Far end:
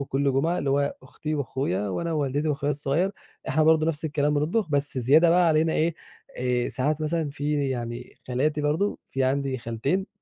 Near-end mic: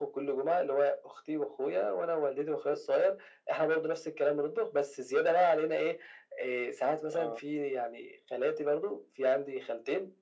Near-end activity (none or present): present